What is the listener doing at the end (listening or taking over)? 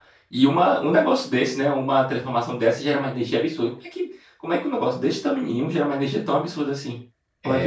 taking over